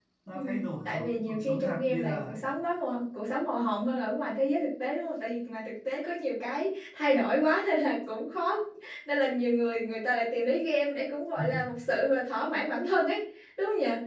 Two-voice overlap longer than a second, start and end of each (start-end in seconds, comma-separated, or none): 0.8-2.4